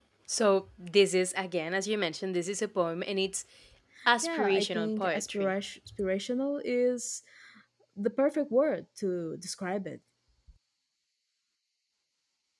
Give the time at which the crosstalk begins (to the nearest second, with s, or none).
4 s